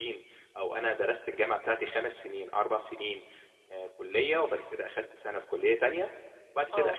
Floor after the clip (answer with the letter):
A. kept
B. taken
A